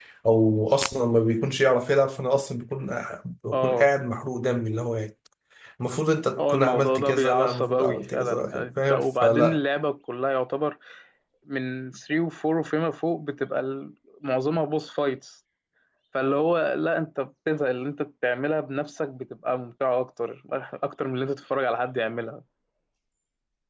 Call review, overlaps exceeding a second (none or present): present